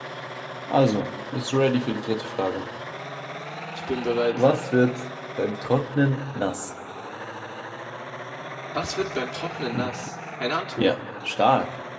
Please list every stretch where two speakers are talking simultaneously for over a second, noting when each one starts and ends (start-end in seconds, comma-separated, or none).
none